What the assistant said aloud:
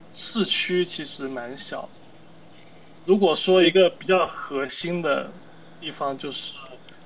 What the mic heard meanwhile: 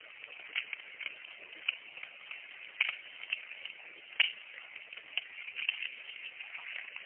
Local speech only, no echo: none

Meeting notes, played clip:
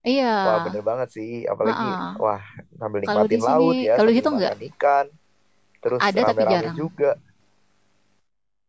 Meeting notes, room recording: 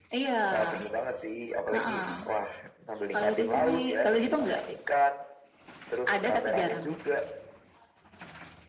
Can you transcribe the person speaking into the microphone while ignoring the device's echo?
none

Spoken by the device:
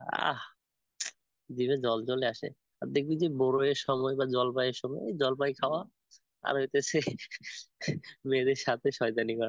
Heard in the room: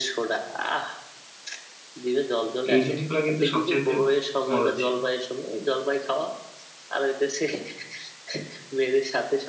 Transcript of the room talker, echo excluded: এই জিনিসগুলো কিন্তু সবচাইতে মজার ছিল

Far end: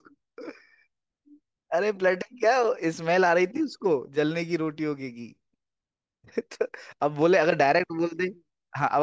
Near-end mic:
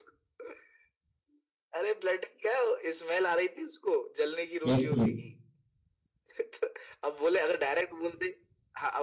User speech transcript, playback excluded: एक से एक

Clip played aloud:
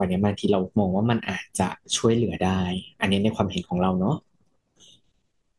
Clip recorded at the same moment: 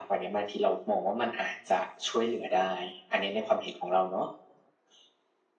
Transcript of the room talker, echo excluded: none

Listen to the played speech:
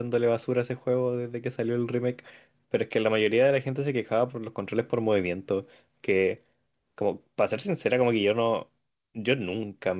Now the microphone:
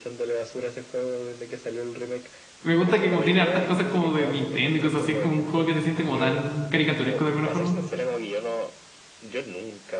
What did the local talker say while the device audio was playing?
me gusta que como tiene hartas cosas como de Nintendo y cosas así, es como un juego que se siente como tan caricaturesco de alguna forma.

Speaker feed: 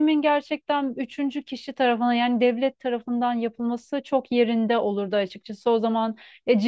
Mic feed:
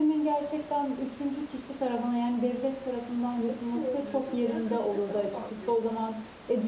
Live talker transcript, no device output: nasıl oluyorsa diğer kadınları daha fazla

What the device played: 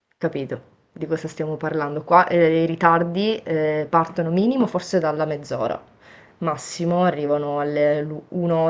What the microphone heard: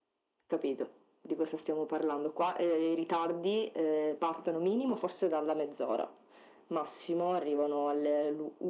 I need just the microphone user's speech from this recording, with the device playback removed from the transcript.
none

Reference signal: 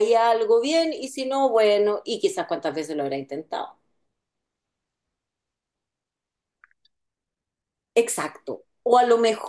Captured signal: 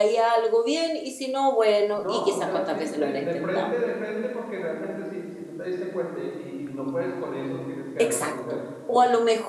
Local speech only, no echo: No, o sea, sí, de, de frente, de frente, porque realmente si, si tú te diste cuenta y, y- y no puedes con eso, tienes que darlo a conocer.

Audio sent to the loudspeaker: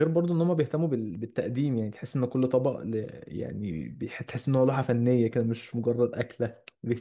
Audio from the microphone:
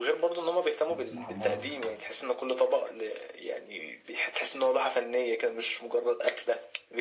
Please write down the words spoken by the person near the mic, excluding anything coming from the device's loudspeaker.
بطاطس محمره

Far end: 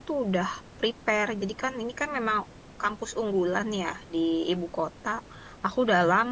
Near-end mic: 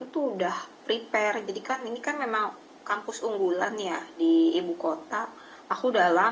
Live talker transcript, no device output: none

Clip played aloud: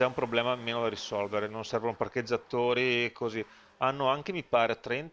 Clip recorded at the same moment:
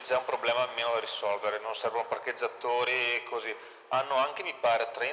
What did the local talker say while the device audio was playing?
none

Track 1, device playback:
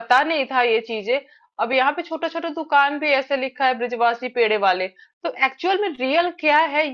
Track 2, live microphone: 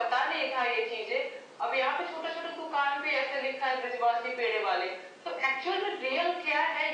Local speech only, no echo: none

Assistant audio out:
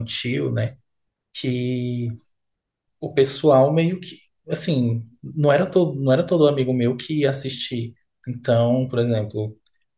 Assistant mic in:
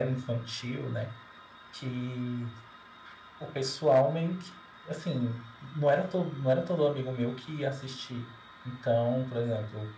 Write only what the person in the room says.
none

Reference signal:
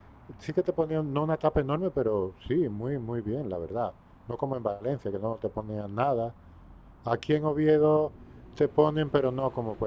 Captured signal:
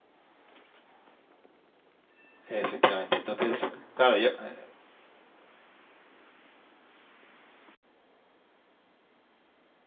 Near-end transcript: Efectivamente. Entonces, claro, yo eh,

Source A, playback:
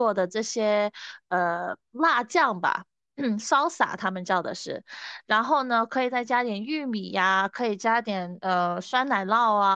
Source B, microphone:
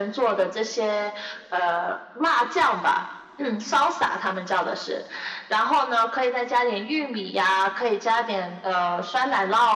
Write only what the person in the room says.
none

